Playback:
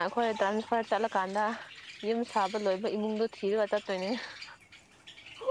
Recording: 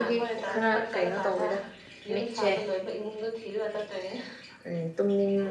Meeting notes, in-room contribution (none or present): present